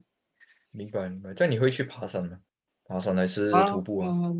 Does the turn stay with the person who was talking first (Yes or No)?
No